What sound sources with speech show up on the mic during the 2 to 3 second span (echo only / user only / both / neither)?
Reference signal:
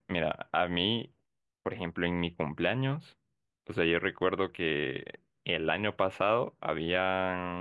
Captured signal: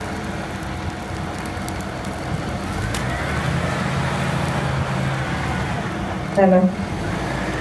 neither